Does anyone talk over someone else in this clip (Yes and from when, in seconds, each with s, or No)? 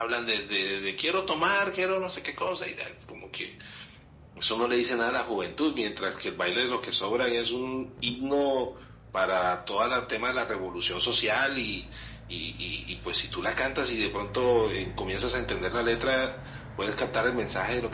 No